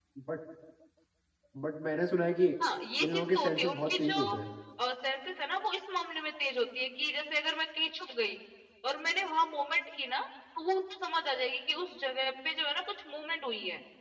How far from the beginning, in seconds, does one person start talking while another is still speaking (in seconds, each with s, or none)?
3.0 s